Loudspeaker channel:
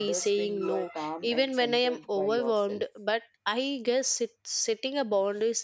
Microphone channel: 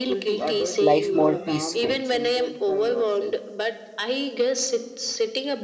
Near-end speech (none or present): present